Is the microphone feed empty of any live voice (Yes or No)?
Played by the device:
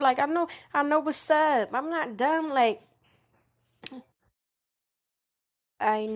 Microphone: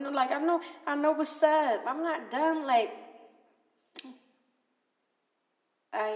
Yes